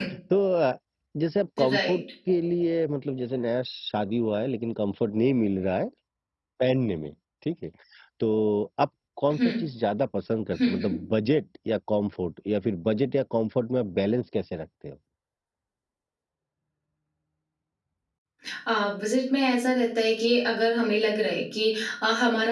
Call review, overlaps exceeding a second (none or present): none